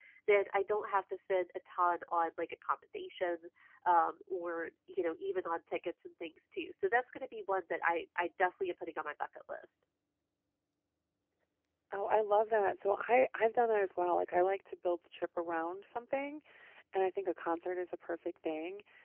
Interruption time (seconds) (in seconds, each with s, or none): none